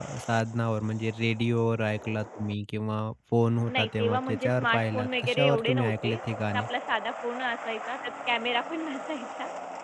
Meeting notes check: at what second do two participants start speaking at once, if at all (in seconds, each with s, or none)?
3.7 s